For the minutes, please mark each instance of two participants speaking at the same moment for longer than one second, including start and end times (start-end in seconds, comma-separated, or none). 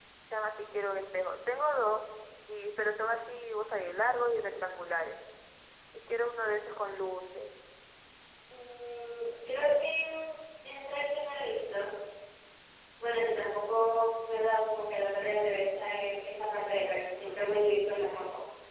none